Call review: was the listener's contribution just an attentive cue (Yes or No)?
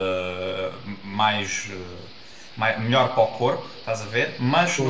Yes